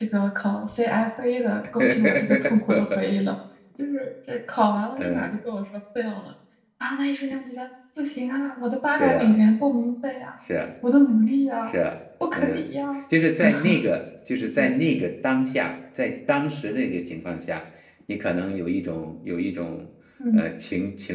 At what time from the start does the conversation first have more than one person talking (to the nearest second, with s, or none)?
2 s